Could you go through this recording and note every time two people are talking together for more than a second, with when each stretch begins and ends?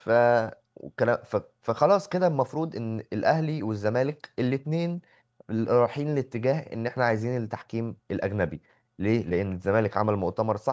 none

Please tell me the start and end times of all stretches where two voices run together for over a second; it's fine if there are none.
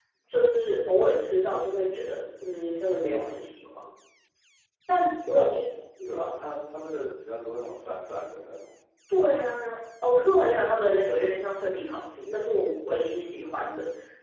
none

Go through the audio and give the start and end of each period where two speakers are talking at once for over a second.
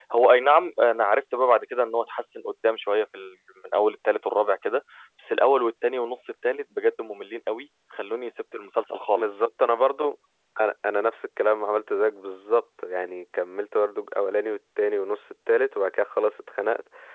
none

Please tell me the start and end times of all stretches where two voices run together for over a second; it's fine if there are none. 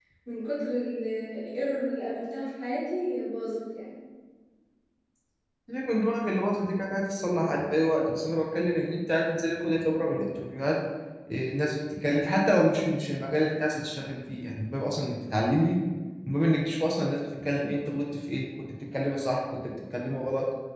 none

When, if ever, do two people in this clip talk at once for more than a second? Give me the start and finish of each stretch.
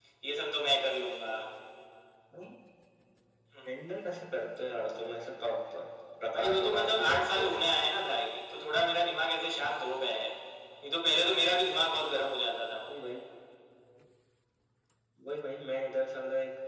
6.3-7.6

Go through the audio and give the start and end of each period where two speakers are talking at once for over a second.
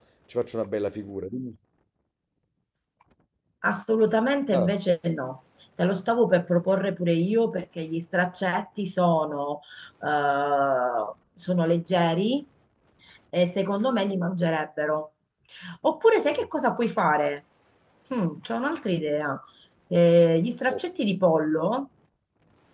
none

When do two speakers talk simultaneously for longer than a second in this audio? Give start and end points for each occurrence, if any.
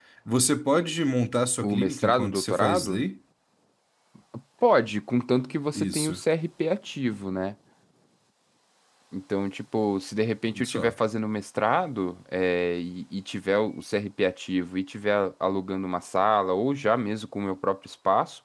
1.6-3.0

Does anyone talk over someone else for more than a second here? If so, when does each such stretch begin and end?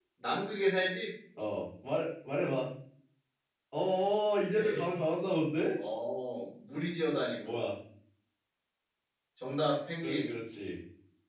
none

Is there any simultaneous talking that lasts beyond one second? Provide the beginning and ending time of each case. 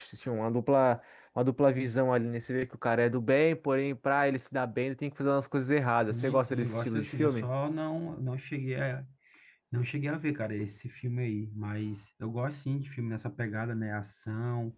5.9-7.5

